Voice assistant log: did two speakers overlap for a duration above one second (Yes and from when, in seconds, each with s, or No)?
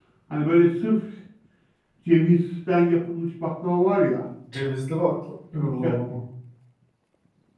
No